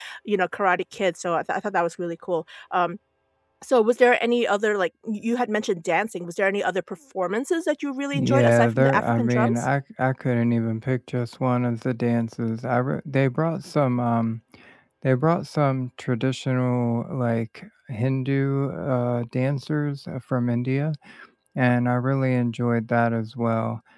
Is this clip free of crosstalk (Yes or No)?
No